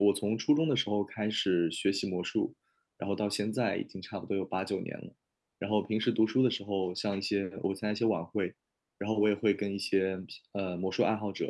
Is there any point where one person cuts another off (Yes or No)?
No